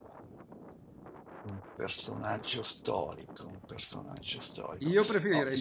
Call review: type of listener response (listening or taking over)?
taking over